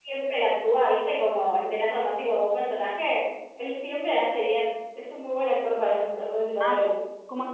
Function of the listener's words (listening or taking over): taking over